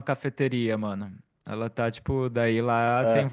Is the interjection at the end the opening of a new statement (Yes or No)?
No